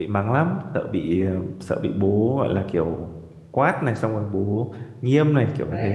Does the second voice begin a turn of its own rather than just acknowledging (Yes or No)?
Yes